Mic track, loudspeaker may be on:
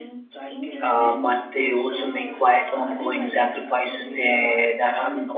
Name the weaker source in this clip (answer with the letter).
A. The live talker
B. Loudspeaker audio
B